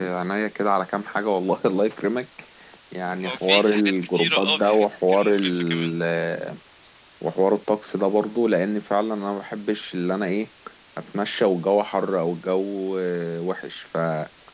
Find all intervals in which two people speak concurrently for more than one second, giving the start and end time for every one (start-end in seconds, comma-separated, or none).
3.2-5.9